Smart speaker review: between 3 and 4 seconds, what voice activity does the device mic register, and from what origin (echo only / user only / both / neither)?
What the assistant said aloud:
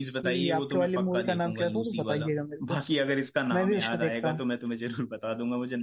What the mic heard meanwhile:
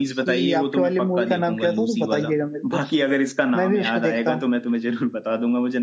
echo only